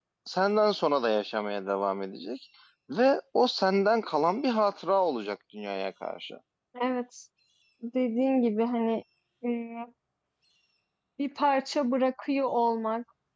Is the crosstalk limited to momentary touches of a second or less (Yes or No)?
Yes